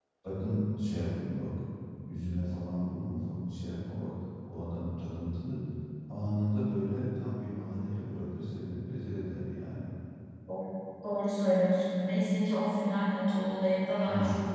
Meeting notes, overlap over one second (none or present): none